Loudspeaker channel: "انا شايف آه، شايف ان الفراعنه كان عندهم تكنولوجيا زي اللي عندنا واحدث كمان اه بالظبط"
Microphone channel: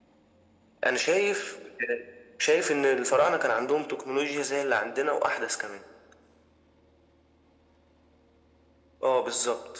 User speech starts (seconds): none

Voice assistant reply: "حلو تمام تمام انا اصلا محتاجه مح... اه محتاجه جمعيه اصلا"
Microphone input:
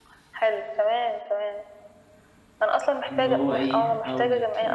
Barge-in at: 3.1 s

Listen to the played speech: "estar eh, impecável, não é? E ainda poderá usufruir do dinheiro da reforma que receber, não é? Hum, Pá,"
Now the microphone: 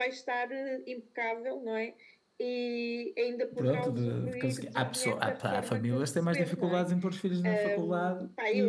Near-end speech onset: 3.5 s

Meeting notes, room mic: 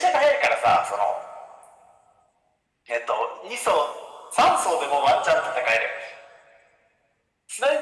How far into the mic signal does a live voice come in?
none

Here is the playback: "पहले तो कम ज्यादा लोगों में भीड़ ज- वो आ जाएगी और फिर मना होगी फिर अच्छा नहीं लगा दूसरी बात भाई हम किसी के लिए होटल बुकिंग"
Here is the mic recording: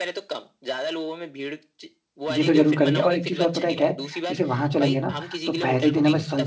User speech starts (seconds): 2.3 s

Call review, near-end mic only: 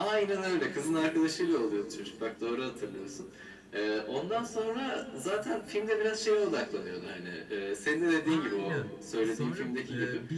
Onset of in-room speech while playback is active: 8.2 s

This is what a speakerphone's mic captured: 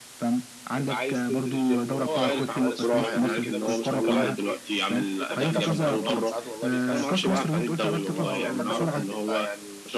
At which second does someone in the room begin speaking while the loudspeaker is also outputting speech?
0.7 s

